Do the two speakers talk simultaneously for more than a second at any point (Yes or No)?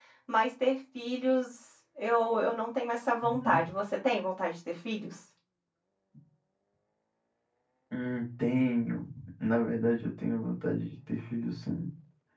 No